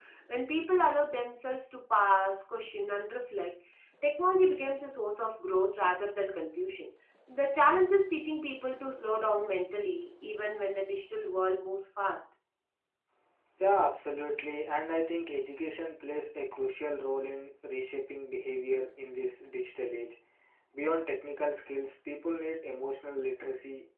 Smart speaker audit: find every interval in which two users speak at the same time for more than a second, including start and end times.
none

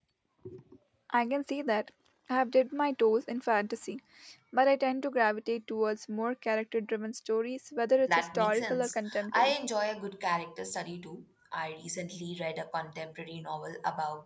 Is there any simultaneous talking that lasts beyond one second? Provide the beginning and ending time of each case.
8.1-9.5

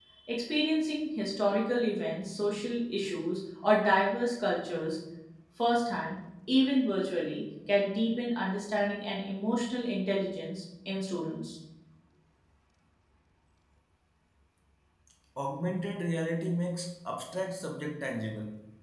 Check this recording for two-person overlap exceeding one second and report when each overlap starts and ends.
none

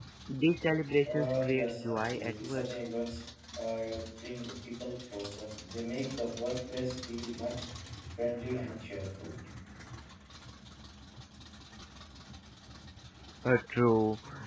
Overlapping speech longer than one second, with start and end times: 1.0-2.7

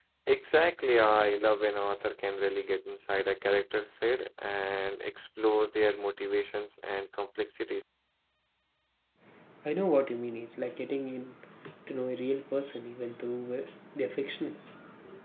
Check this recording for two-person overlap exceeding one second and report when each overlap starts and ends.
none

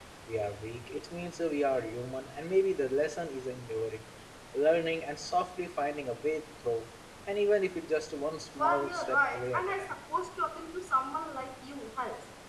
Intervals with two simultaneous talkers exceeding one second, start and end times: 8.6-10.0

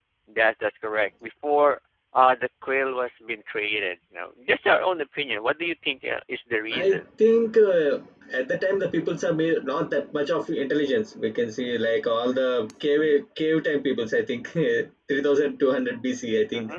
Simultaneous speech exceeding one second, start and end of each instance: none

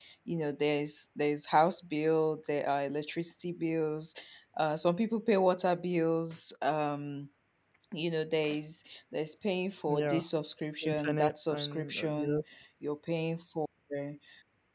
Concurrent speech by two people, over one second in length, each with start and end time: 10.8-12.4

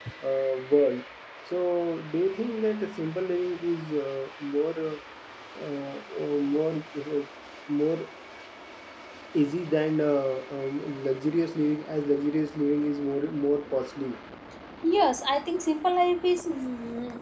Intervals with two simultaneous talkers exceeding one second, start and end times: none

